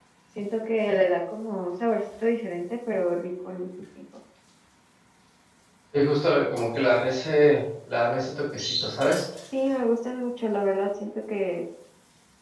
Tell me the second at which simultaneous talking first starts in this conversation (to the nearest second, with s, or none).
none